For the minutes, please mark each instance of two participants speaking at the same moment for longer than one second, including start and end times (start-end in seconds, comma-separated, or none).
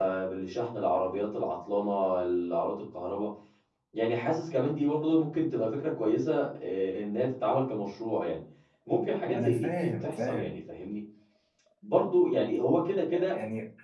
9.3-10.6